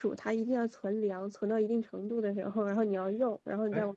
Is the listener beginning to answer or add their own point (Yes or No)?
Yes